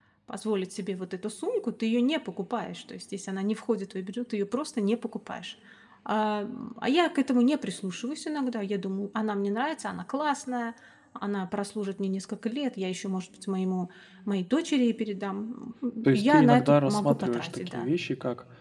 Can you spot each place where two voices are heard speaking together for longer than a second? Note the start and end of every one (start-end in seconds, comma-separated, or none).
16.0-17.9